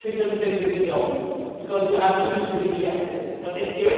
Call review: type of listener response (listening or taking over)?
listening